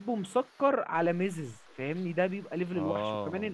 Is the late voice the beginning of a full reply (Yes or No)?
No